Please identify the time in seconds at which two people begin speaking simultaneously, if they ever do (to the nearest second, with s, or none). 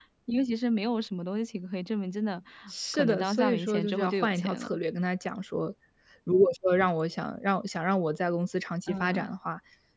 3 s